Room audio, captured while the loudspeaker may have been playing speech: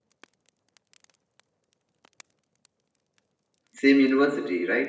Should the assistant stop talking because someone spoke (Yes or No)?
Yes